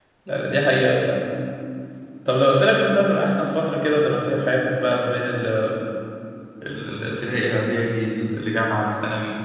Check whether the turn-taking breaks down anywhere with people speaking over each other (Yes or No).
No